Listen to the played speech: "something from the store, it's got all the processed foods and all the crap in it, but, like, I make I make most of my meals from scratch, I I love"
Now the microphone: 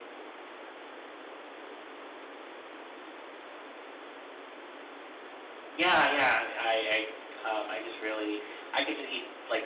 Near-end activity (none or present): present